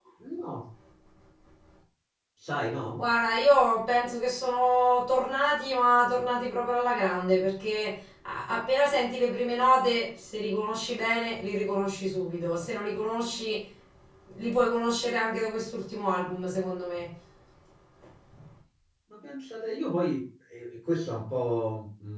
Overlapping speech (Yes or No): No